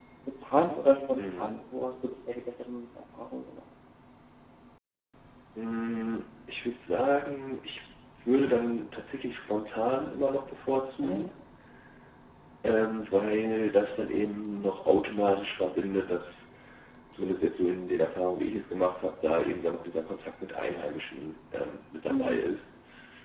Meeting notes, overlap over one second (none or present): none